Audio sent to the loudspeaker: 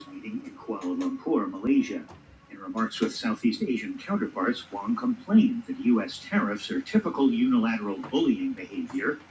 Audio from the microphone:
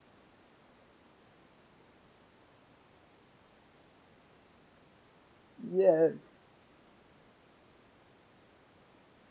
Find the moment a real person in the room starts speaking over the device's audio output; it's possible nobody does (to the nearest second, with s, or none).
6 s